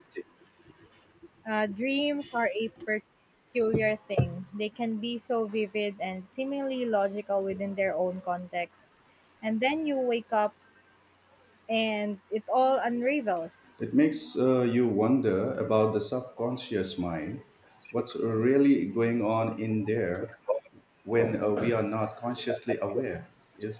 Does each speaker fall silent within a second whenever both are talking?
Yes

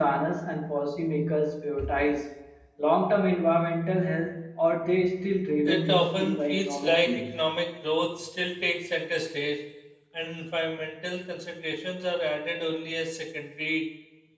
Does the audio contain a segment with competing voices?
Yes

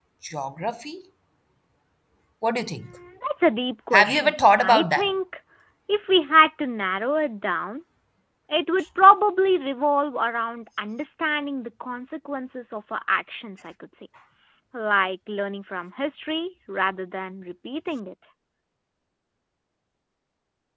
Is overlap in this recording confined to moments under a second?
No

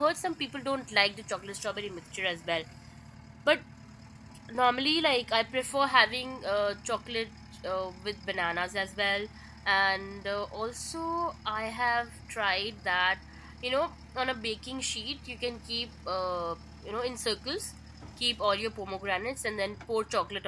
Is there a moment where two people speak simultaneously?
No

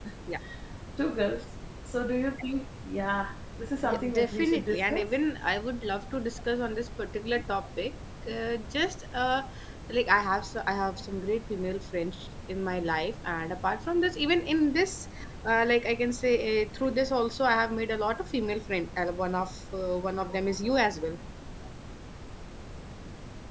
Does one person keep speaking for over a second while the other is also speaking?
Yes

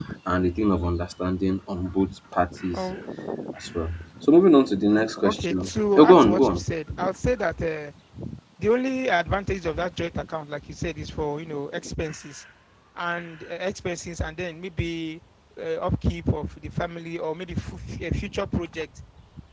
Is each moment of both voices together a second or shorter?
No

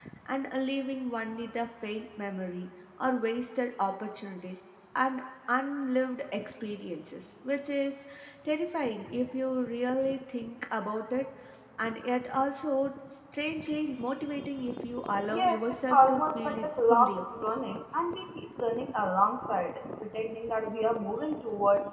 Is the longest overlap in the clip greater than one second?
Yes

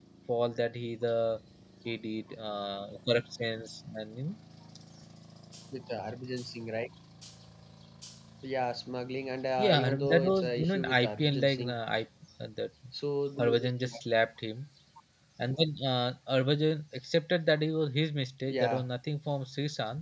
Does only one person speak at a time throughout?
No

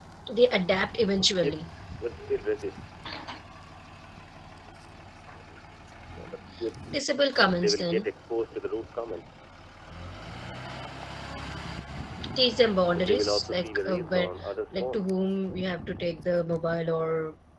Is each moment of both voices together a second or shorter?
No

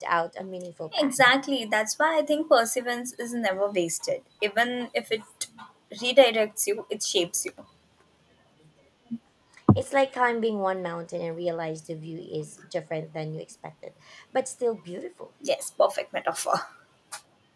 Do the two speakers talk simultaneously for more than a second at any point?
No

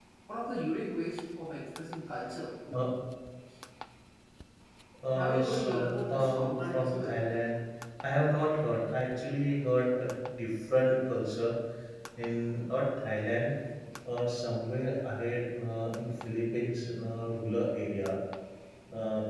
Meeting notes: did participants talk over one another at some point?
Yes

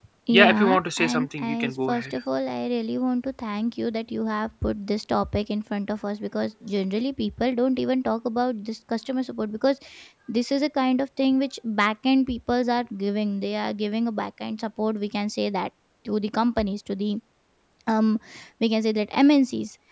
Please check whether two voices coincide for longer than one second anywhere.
Yes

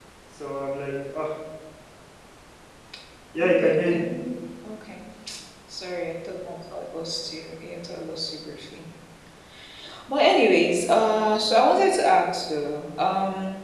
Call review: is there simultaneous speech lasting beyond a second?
No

